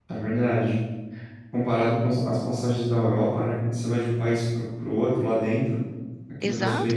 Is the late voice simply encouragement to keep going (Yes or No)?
No